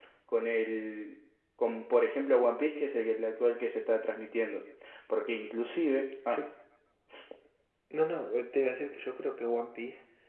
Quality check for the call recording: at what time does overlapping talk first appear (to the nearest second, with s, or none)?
none